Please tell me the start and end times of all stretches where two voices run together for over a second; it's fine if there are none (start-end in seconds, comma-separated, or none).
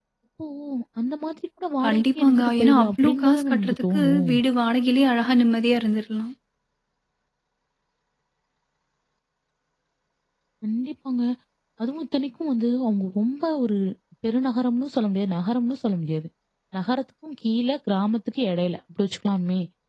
1.8-4.3